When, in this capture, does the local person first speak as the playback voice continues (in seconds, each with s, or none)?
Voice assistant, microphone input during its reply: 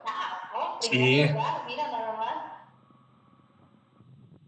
0.8 s